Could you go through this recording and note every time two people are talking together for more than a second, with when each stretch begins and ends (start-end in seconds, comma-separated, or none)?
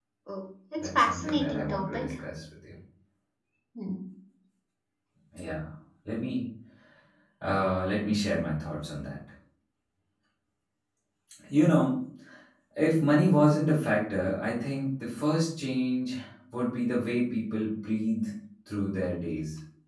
0.8-2.1